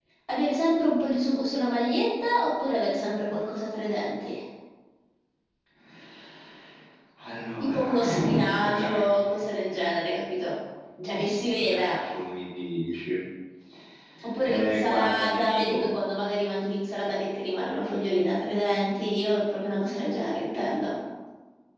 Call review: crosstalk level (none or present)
present